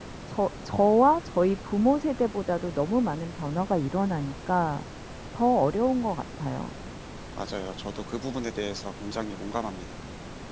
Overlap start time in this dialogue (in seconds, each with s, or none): none